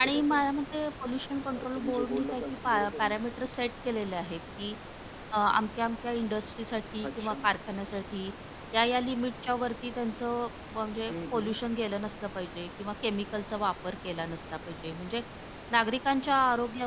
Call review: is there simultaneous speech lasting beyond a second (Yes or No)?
Yes